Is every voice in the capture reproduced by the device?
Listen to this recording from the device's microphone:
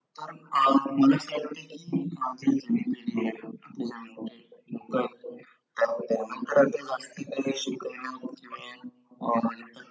Yes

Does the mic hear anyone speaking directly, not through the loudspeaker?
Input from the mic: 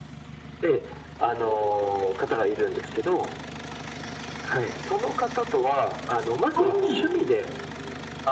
Yes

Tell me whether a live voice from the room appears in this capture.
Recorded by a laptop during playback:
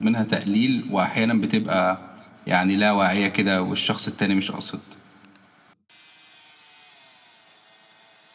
Yes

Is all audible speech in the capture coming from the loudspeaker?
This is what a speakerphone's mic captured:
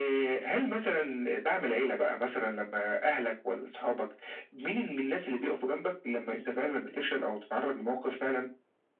Yes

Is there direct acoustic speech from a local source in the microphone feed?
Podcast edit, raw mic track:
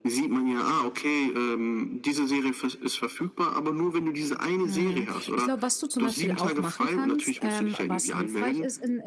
Yes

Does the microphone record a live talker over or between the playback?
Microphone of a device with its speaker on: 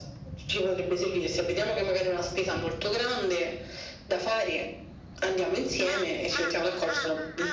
No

